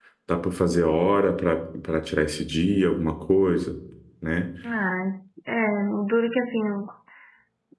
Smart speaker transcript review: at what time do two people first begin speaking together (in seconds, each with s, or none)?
none